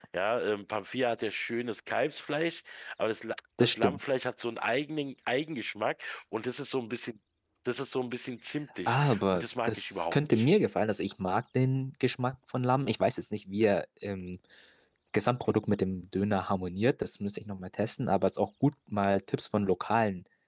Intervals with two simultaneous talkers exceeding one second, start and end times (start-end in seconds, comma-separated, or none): 8.9-10.5